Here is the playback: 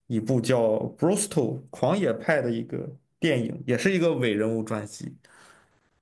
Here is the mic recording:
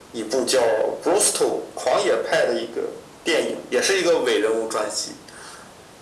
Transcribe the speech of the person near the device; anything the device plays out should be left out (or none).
none